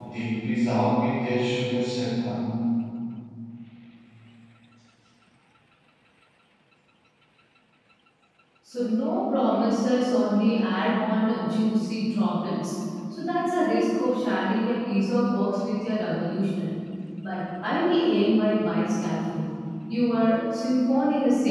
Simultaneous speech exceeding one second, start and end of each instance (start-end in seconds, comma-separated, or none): none